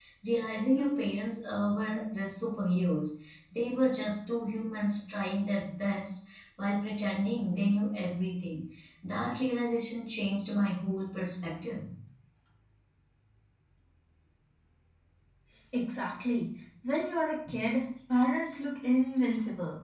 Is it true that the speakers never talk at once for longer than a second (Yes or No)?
Yes